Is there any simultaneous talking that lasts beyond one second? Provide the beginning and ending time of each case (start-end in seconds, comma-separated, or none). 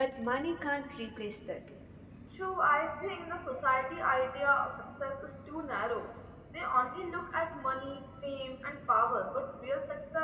none